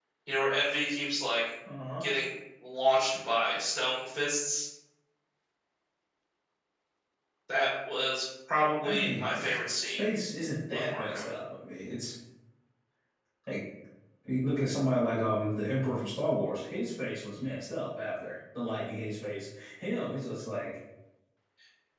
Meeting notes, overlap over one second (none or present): present